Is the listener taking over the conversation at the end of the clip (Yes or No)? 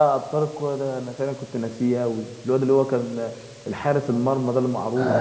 Yes